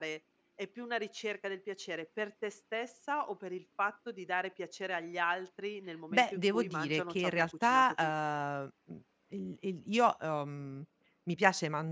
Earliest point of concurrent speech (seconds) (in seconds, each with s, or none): 6.1 s